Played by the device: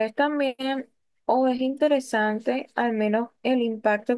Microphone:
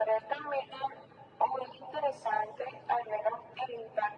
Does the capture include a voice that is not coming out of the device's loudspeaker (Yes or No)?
No